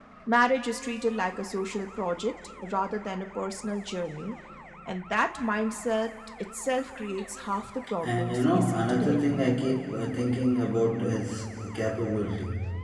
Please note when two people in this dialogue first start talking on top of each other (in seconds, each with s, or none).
8.0 s